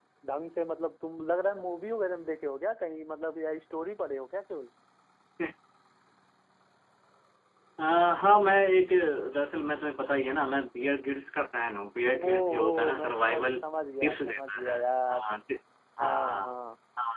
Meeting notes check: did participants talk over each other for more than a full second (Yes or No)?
Yes